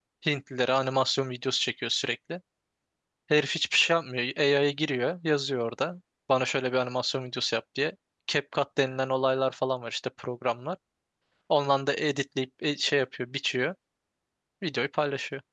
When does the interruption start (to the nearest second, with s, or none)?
none